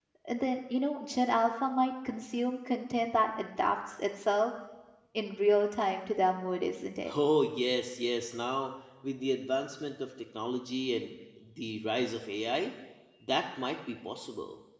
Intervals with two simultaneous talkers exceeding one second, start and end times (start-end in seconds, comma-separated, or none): none